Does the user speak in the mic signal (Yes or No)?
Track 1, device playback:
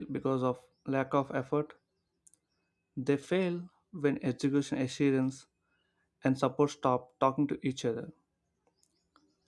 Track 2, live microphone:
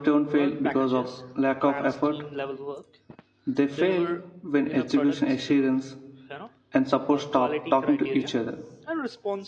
Yes